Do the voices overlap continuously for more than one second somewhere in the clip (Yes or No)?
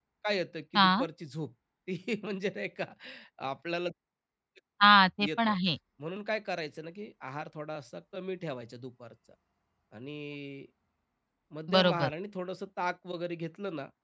No